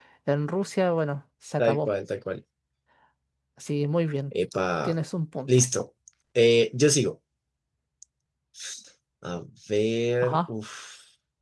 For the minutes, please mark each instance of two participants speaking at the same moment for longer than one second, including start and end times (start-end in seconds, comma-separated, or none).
none